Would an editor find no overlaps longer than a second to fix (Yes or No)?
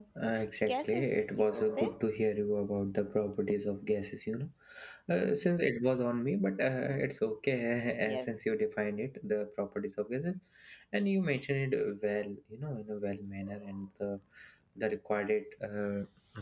No